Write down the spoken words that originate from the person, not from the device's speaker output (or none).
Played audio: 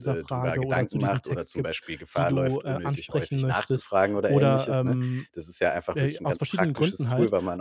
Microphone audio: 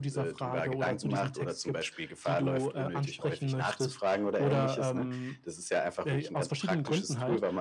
none